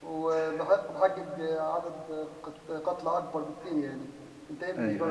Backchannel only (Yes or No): No